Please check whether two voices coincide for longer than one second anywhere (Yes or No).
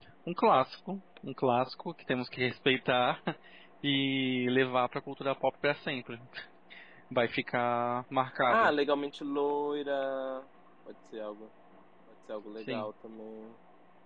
No